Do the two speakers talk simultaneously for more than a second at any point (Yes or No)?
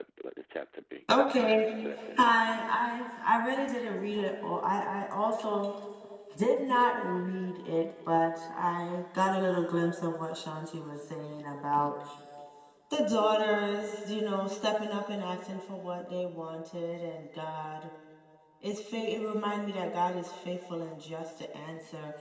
No